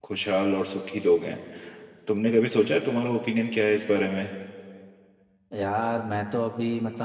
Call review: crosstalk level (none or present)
none